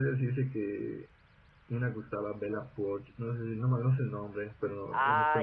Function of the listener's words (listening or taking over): taking over